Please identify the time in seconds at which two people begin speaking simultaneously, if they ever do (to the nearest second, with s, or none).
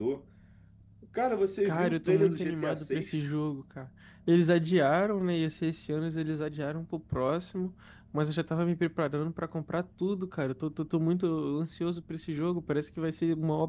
2 s